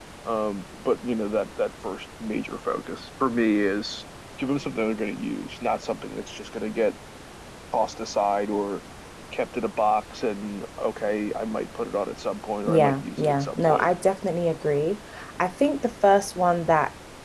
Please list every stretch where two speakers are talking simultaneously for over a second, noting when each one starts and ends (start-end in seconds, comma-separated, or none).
12.7-13.8